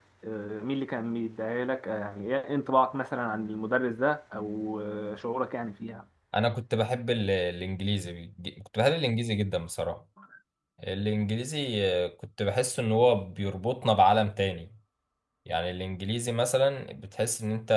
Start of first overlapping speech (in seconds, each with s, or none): none